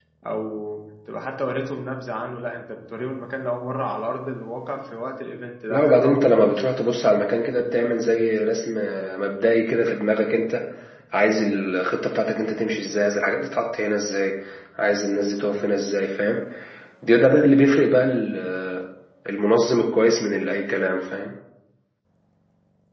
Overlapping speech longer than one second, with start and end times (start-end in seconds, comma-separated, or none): 5.7-7.0